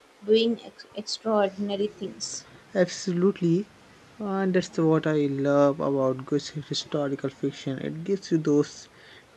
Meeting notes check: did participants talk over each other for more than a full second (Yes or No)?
No